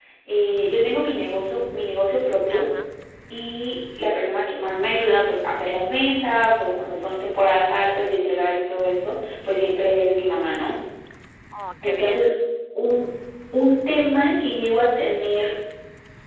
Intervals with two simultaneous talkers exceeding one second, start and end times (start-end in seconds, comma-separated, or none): none